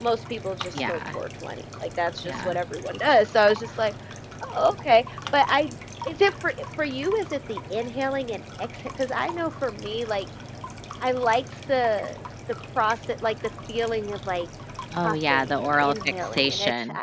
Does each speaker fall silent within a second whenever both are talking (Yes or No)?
No